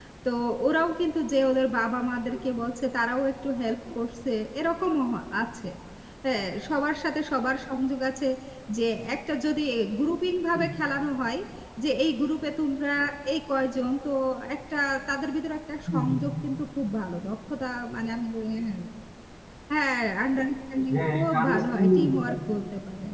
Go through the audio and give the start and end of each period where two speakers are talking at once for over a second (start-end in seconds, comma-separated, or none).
20.9-22.3